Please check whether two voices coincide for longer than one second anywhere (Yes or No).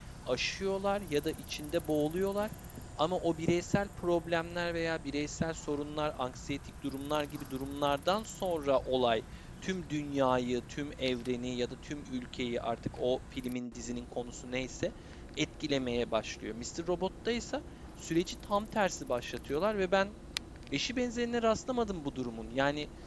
No